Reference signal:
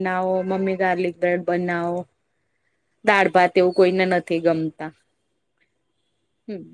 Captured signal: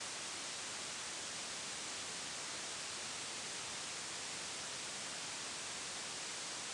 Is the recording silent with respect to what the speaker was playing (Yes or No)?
Yes